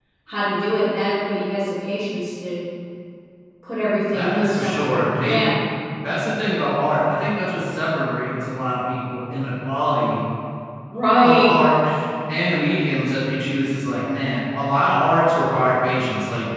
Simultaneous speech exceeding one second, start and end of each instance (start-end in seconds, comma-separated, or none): 4.1-5.4